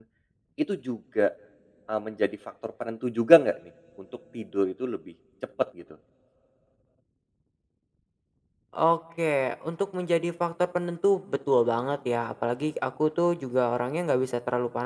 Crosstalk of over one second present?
No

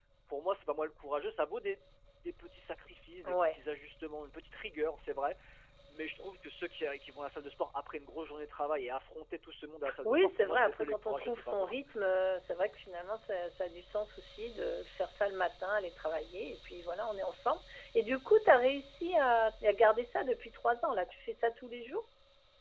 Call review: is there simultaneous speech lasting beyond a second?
Yes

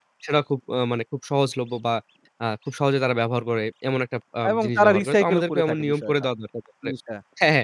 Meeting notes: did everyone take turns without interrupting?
No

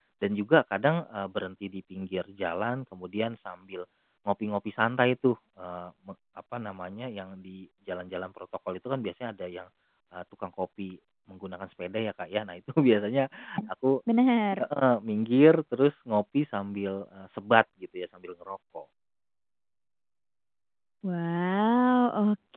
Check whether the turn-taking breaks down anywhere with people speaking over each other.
No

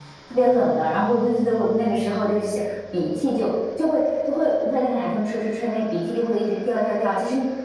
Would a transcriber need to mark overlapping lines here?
No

